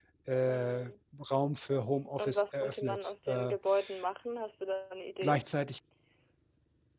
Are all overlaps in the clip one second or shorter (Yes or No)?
No